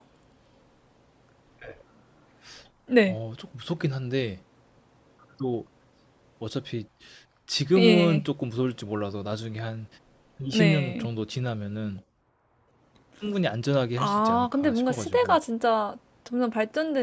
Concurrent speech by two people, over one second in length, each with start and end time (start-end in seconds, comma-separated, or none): 14.0-15.4